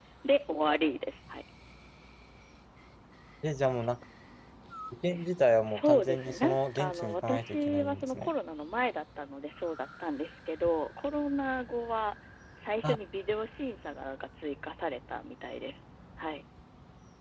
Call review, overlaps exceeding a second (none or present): present